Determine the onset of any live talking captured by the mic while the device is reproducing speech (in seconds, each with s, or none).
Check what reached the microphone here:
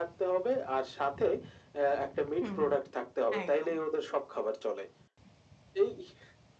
2.3 s